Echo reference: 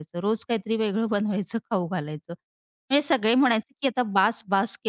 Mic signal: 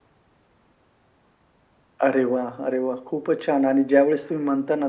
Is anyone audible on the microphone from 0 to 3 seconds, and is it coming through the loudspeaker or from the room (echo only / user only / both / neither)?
user only